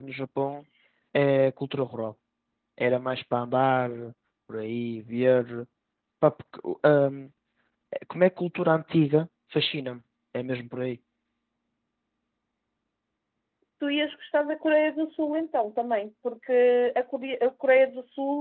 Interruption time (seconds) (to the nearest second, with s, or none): none